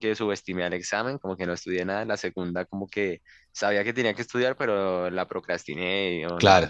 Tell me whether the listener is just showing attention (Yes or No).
Yes